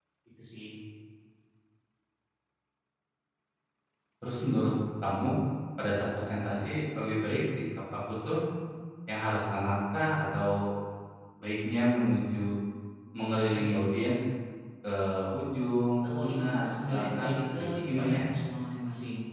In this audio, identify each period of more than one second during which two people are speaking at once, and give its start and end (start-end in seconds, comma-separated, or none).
16.0-18.1